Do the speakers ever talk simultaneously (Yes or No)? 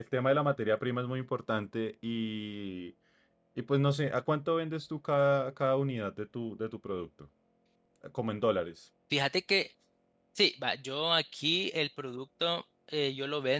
No